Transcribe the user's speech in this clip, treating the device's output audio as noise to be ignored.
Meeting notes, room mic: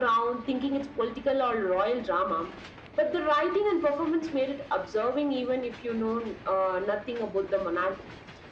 none

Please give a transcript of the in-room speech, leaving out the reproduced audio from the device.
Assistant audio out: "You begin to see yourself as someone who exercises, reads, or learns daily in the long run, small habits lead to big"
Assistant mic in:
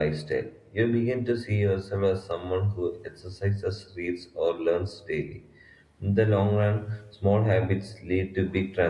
none

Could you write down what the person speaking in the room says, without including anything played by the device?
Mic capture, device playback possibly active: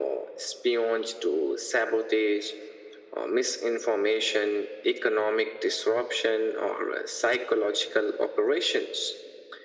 none

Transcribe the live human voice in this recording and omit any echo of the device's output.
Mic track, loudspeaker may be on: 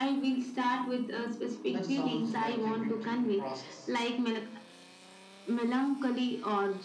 That sounds like a beautiful process.

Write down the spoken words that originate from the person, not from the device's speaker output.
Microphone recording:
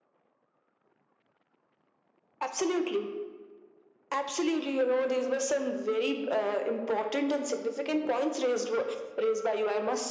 none

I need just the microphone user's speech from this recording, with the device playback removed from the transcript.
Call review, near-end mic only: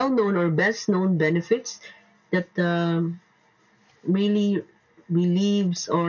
none

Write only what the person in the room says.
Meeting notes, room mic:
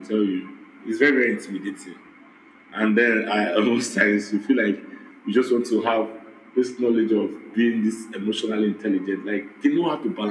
none

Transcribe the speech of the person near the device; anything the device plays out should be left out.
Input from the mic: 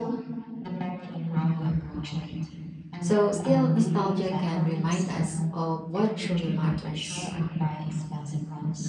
So, still, nostalgia can remind us of what truly matters.

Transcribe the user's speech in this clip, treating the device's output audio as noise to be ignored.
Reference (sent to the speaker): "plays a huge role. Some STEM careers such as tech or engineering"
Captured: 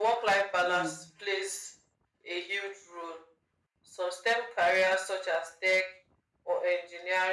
Mm.

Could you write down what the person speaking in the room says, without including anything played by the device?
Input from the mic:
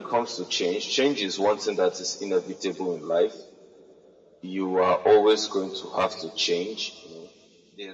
none

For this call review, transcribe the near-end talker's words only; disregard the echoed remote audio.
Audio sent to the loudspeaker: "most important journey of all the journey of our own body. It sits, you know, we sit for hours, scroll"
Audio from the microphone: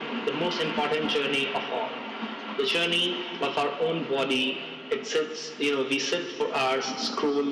none

